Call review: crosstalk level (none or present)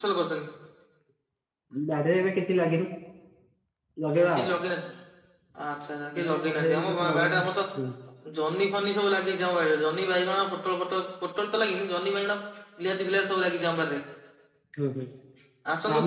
present